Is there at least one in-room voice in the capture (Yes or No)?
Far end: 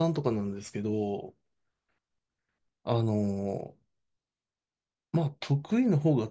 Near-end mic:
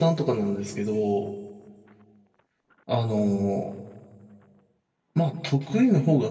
No